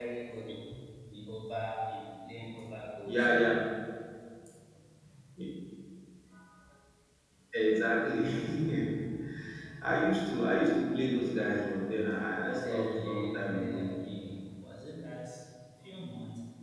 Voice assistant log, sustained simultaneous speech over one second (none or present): present